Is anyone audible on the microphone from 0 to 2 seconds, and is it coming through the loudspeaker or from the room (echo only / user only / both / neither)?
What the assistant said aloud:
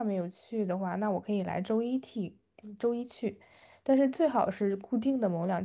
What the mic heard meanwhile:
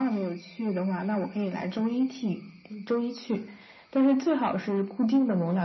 echo only